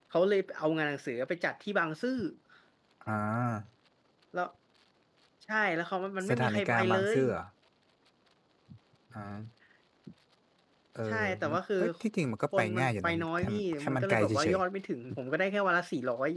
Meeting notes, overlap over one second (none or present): present